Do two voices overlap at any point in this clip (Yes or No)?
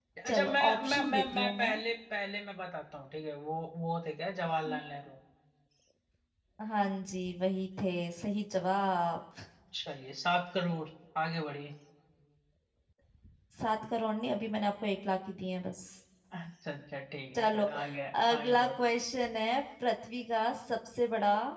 Yes